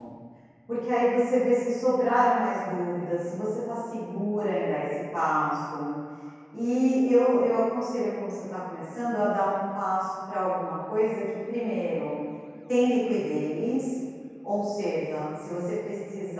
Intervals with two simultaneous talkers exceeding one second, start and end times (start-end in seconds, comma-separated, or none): none